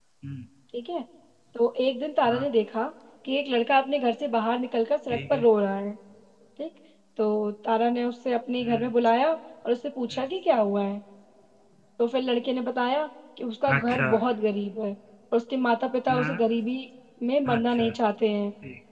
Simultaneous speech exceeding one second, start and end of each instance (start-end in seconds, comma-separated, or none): none